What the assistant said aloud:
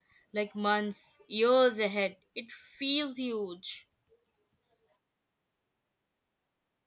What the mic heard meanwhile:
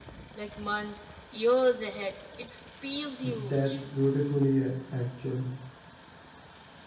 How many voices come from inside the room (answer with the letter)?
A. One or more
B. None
A